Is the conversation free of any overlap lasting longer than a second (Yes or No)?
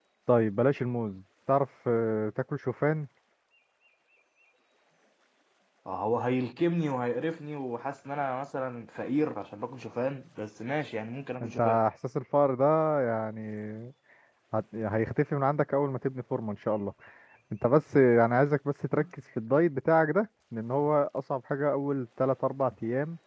Yes